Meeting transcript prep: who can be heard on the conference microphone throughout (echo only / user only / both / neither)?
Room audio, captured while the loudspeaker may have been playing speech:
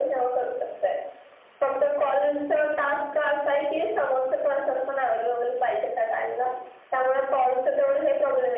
echo only